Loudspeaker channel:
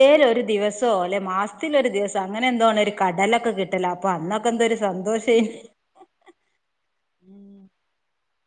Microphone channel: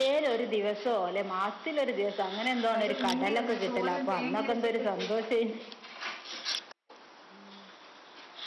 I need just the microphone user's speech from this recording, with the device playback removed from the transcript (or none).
പയറ് പുഴുങ്ങിയതല്ല തോരൻ തേങ്ങ അരച്ചിട്ടിട്ട്.